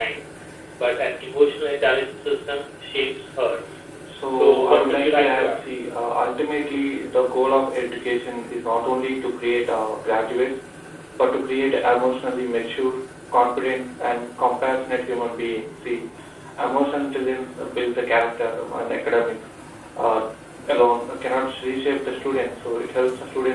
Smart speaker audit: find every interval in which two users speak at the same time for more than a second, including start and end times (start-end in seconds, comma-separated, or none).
4.3-5.6